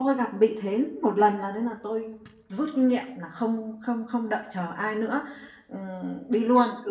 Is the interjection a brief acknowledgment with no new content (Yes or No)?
Yes